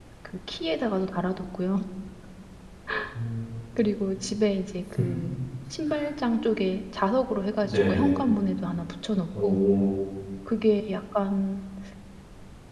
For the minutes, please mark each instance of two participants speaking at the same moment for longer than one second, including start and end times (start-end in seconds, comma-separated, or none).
none